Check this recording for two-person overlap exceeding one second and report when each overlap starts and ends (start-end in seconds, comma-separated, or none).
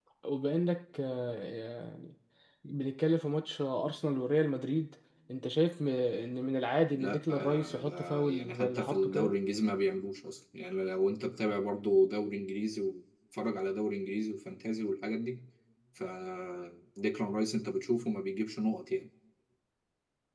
6.9-9.3